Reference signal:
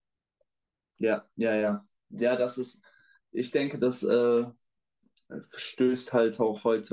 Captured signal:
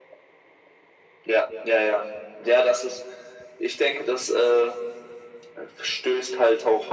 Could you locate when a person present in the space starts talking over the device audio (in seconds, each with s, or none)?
none